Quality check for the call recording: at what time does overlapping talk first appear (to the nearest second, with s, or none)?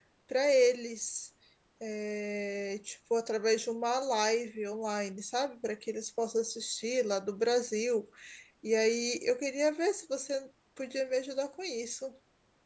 none